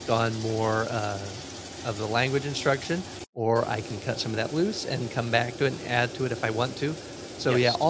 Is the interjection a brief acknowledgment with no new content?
Yes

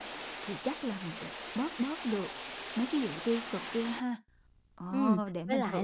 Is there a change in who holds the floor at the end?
Yes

